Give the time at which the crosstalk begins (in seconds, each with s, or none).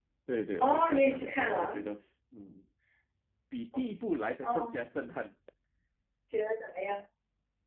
0.6 s